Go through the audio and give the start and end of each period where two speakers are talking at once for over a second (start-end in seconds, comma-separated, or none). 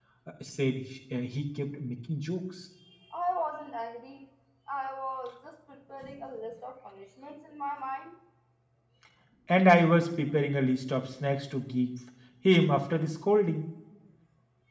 none